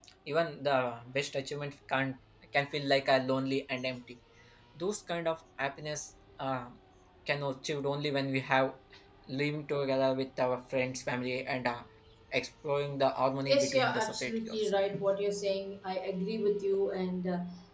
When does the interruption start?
13.5 s

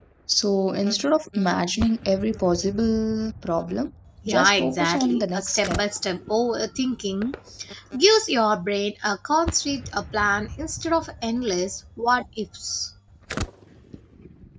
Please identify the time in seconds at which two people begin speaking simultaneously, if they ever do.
4.3 s

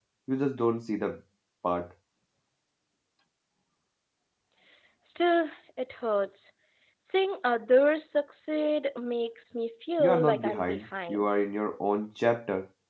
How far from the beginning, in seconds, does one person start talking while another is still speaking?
10.0 s

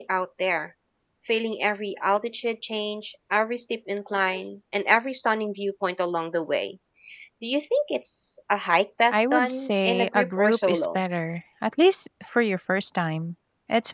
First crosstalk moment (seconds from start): 9.1 s

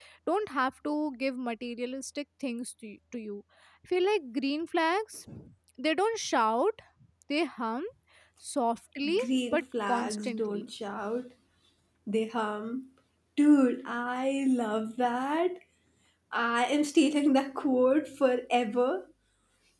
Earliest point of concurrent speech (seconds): 9.2 s

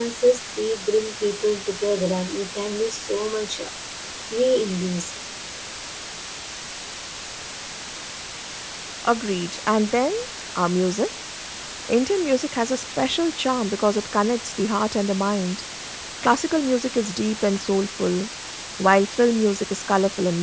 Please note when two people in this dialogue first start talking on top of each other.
none

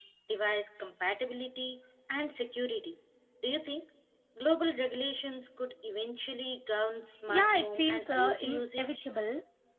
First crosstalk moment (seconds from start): 7.3 s

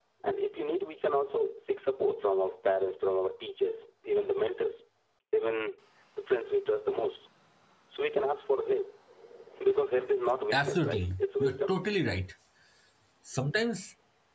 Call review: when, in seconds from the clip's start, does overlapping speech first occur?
10.5 s

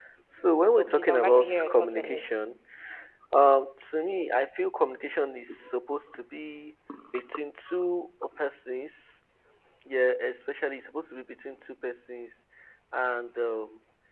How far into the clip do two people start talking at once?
0.7 s

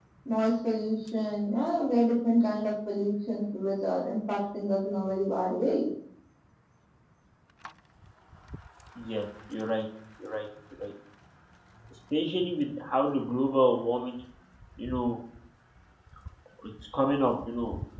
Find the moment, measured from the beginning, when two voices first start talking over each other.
none

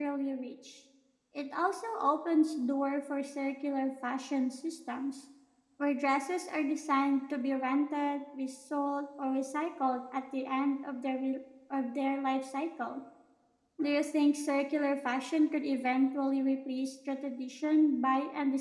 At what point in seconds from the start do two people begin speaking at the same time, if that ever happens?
none

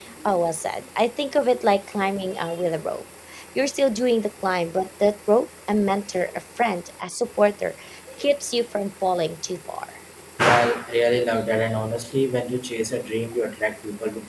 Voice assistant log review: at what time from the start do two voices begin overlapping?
none

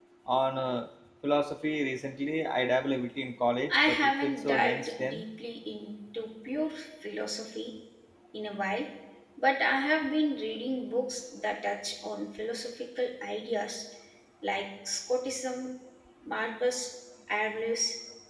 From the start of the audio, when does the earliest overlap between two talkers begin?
3.7 s

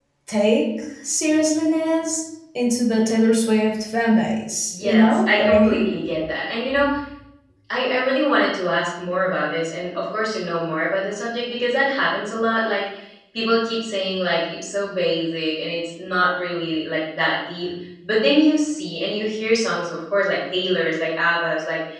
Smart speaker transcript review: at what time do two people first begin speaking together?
4.7 s

